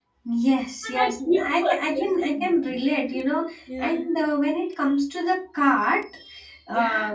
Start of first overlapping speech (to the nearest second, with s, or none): 1 s